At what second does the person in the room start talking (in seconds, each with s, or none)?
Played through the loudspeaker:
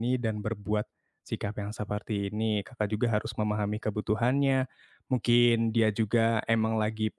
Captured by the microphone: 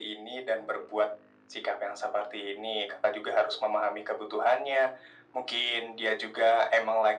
none